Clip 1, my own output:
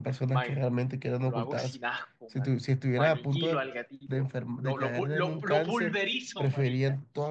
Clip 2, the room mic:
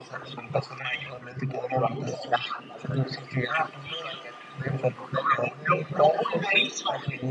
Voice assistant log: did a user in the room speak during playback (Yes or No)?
No